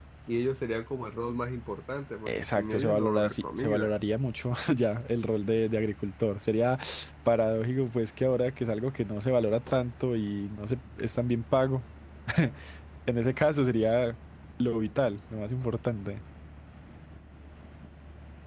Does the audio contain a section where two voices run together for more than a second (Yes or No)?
Yes